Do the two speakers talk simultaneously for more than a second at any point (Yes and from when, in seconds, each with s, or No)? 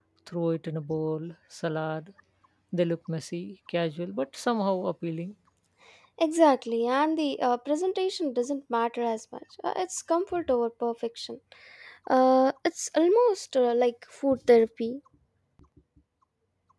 No